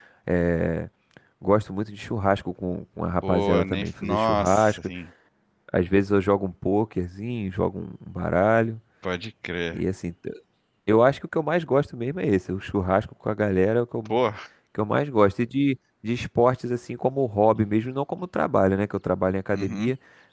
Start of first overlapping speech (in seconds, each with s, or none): 3.3 s